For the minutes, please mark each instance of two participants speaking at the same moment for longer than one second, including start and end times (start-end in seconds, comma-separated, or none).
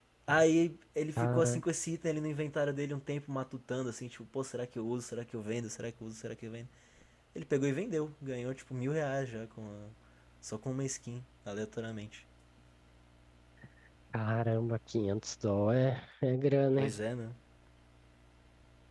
none